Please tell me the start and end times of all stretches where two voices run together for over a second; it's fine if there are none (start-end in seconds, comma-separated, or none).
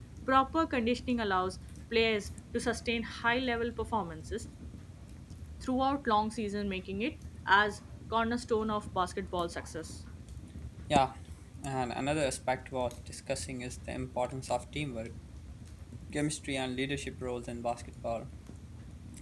none